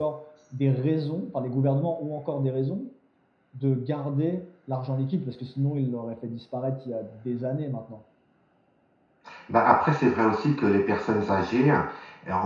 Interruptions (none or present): none